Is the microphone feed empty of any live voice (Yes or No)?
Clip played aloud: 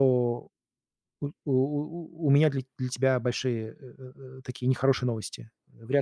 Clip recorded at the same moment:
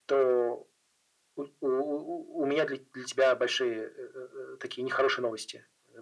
Yes